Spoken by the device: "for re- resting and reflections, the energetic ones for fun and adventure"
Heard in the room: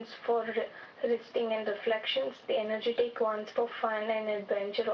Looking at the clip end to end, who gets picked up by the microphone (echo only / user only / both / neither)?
echo only